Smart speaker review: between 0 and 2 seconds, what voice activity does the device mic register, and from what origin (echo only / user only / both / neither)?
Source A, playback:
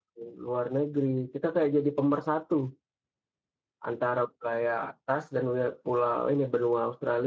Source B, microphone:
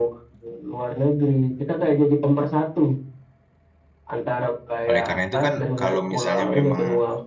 echo only